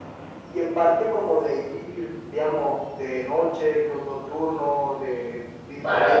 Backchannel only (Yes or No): No